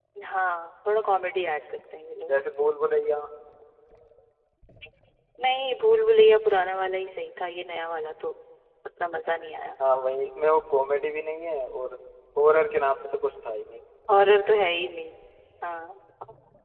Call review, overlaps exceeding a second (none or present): none